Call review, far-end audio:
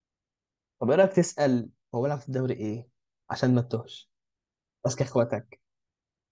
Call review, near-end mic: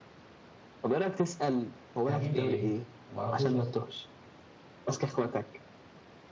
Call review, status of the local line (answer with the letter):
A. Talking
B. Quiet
A